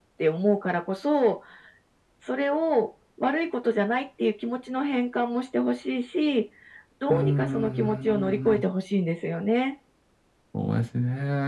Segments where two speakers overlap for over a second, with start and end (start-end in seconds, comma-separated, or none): 7.1-8.6